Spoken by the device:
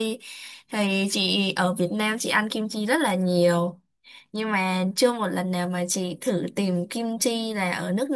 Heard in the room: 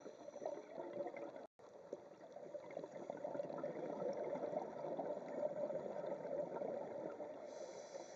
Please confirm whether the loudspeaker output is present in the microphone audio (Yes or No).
No